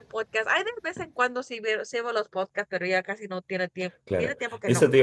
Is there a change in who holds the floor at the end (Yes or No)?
Yes